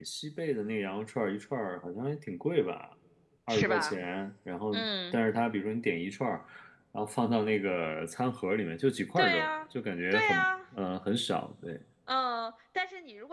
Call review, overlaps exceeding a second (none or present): none